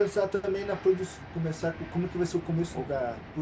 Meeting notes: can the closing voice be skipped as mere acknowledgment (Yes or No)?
No